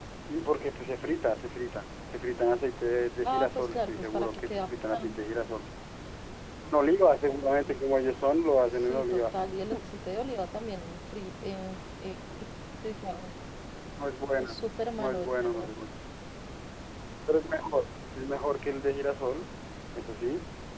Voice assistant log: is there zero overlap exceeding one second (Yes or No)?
No